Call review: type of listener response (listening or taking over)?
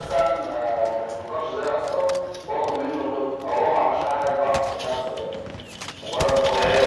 taking over